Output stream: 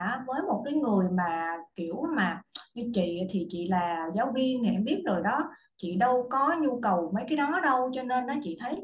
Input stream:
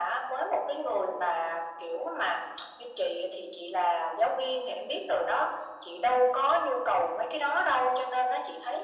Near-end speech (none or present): none